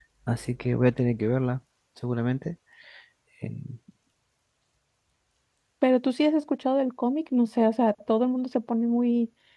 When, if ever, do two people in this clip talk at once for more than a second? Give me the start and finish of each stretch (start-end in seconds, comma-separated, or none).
none